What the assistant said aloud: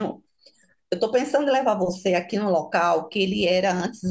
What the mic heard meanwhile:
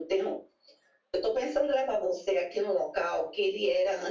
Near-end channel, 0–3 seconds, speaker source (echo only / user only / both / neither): echo only